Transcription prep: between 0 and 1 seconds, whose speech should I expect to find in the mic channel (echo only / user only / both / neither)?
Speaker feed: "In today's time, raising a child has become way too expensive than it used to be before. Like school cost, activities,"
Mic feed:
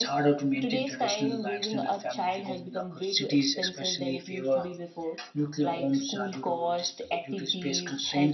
both